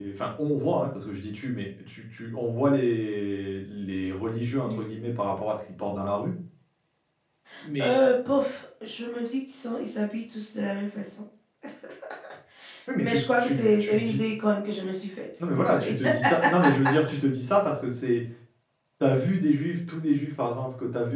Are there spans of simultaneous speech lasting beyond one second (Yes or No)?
Yes